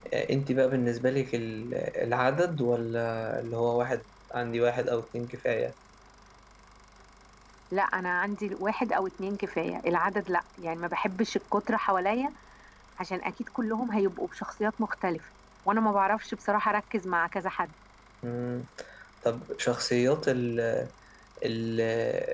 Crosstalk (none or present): none